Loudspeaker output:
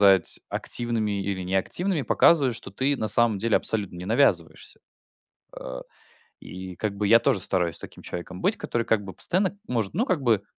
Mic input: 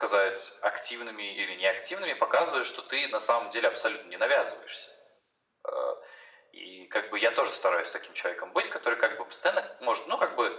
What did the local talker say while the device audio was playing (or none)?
none